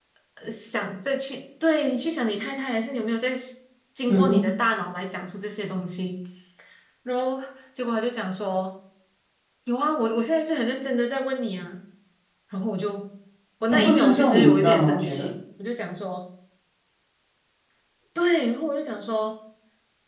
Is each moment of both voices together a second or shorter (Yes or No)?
No